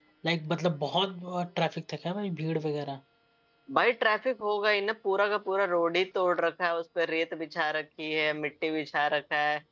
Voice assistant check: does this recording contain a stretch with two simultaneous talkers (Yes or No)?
No